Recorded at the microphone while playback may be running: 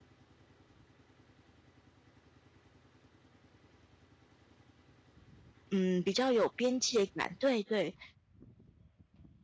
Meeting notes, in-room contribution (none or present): present